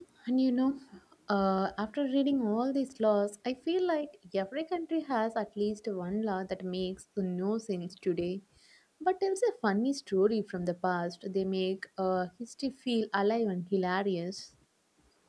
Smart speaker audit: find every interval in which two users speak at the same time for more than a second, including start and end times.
none

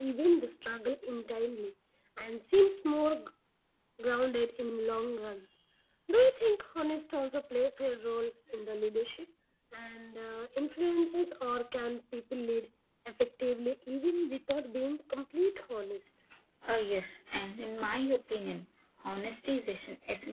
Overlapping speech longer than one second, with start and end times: none

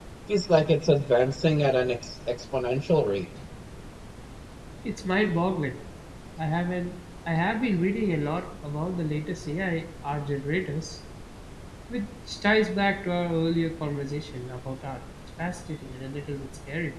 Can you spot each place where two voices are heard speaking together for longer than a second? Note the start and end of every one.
none

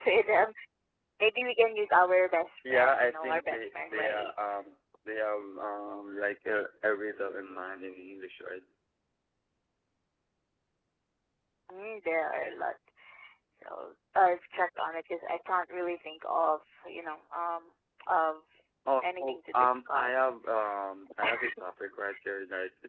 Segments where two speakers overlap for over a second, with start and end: 2.7-4.3, 19.0-20.3

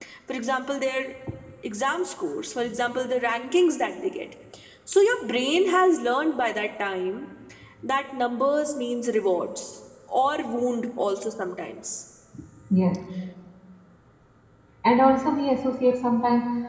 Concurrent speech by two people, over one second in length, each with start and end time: none

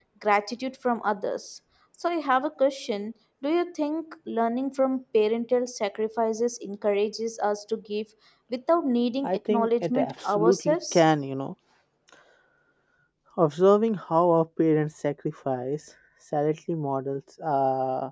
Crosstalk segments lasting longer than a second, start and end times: 9.2-10.9

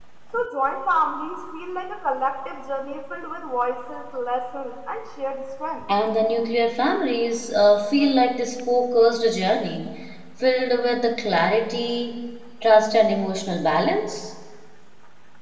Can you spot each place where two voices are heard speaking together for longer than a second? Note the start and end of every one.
none

